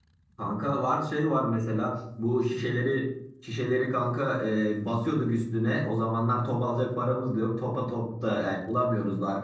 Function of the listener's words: listening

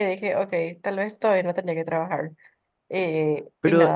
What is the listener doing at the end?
taking over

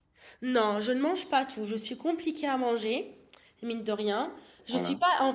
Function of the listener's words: listening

